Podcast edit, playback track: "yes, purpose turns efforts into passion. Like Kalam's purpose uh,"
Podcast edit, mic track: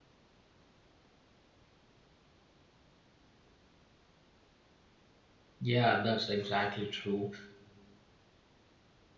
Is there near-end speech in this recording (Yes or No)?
Yes